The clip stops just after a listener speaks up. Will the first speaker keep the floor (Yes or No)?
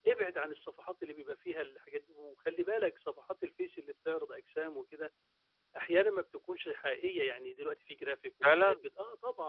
Yes